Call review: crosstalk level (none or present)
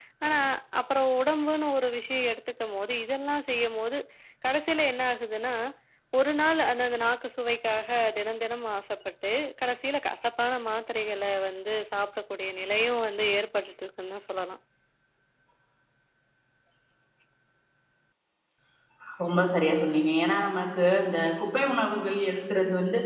none